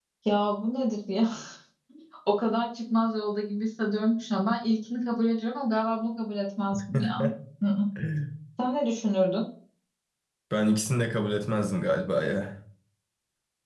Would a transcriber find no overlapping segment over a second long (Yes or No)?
Yes